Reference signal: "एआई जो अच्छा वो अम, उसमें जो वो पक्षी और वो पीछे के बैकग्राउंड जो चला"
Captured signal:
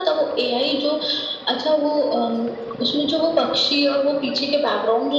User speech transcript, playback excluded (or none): none